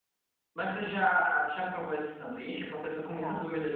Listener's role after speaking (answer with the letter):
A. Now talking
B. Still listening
B